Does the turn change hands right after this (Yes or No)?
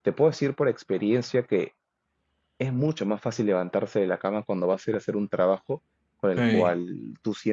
No